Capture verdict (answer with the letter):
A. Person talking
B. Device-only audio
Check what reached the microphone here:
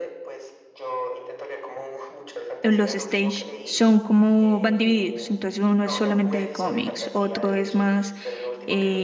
A